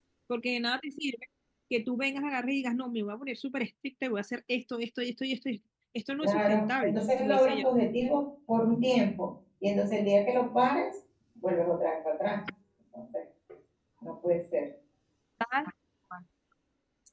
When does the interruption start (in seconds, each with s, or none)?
6.2 s